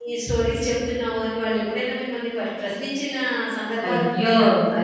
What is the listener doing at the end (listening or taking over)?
taking over